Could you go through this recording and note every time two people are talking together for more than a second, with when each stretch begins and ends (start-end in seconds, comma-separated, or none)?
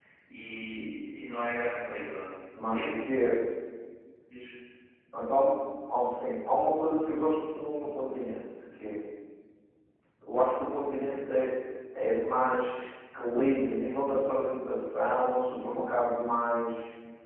none